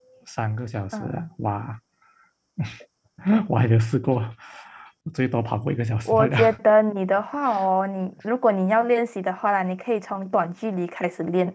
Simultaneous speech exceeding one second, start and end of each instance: none

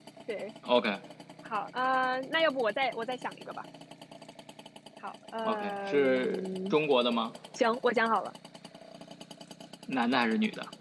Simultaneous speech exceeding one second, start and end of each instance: 5.4-6.8

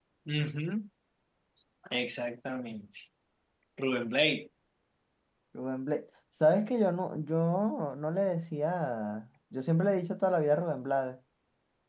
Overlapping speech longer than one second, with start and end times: none

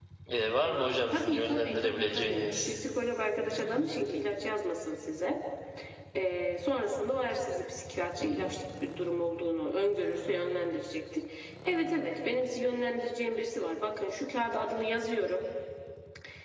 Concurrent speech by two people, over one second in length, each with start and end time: 0.6-2.7

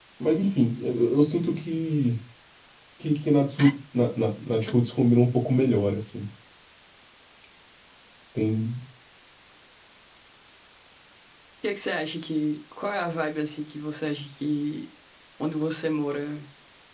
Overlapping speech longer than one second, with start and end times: none

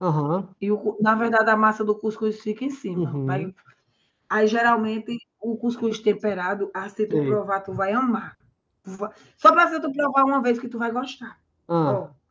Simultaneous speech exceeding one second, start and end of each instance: none

